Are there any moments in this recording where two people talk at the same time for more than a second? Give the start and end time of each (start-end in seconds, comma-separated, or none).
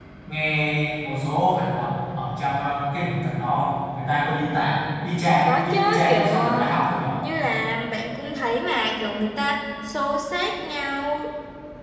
5.5-6.7